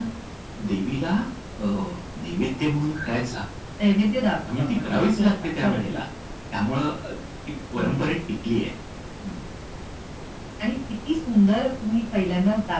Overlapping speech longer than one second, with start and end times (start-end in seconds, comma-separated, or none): 4.6-5.8